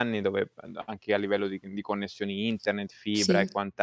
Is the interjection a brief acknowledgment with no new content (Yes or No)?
Yes